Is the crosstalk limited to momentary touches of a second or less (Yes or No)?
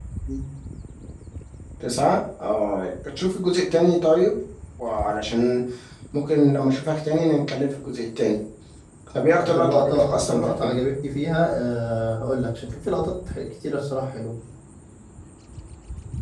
No